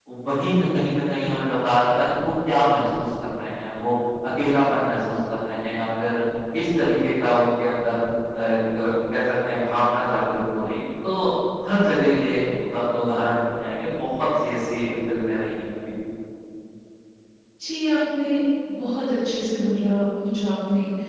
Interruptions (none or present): none